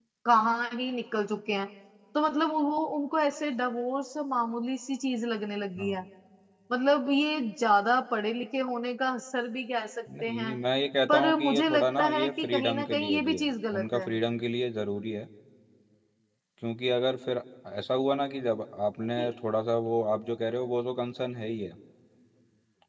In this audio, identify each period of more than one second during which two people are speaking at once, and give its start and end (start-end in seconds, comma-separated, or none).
11.1-14.1